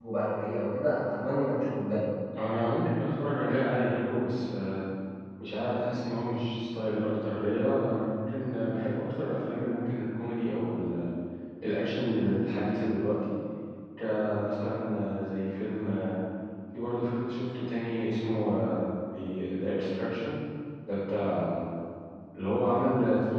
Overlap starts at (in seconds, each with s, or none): none